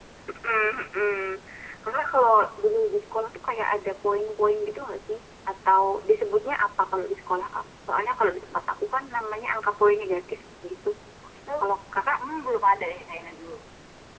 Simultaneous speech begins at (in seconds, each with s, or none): none